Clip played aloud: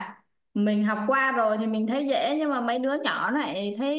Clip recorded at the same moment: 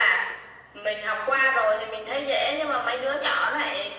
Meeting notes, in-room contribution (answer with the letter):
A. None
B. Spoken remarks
A